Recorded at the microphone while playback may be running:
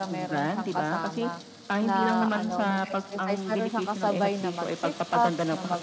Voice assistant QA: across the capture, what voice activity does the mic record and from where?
both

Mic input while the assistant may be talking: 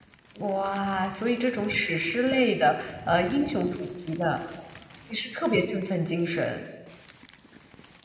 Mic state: user only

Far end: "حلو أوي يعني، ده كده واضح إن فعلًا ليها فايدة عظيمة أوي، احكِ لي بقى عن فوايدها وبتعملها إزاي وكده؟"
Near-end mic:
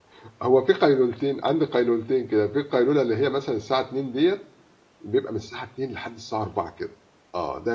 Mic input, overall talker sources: user only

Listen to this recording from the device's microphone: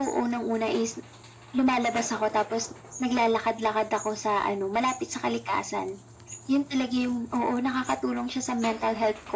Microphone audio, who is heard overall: echo only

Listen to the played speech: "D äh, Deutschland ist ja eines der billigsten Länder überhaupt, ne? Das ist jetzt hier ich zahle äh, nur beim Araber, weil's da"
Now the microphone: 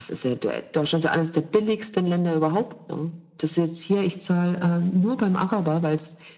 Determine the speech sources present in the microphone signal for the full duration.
echo only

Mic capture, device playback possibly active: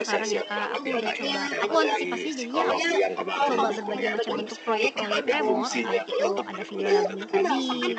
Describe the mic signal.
both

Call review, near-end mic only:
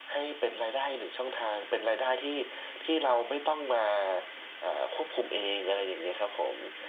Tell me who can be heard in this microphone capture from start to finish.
echo only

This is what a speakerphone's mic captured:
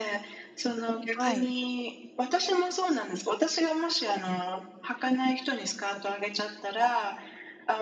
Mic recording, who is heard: both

